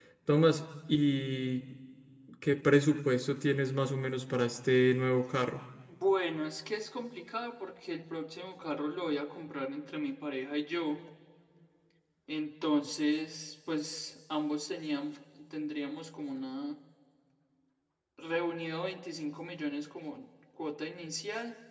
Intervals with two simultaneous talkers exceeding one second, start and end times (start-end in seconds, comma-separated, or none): none